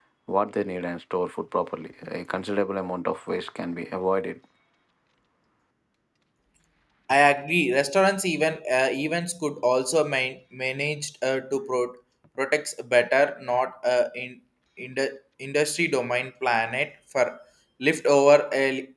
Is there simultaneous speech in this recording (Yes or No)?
No